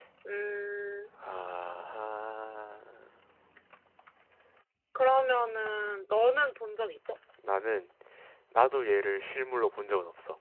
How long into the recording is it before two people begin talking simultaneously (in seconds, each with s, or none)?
none